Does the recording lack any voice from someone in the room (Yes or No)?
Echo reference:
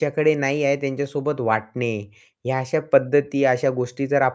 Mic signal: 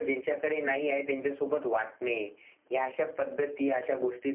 Yes